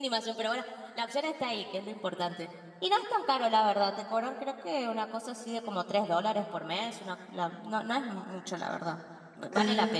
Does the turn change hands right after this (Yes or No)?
Yes